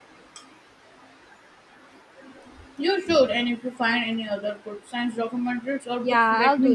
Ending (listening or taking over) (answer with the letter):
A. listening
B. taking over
B